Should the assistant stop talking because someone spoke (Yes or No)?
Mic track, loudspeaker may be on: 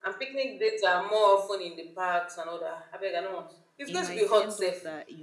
Yes